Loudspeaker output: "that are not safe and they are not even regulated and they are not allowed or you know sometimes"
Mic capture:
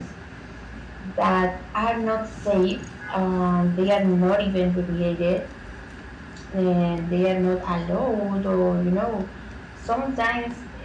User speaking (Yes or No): No